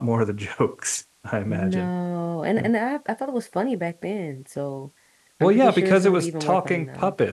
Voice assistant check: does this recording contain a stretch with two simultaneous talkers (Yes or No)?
Yes